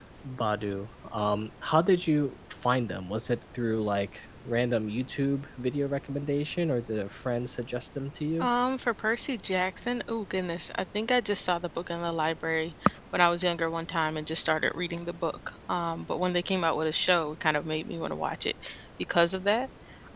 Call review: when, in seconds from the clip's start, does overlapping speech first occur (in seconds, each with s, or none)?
none